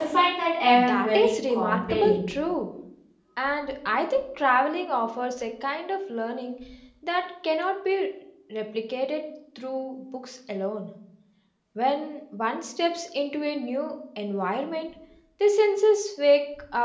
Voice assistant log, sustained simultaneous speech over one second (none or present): present